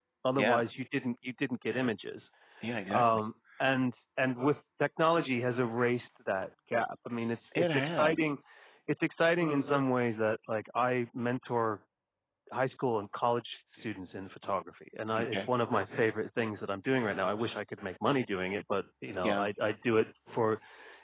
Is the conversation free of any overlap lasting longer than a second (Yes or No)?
Yes